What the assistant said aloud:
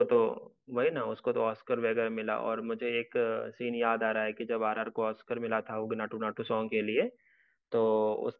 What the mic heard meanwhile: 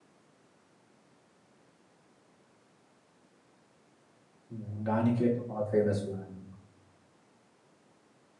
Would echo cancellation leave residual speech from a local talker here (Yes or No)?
Yes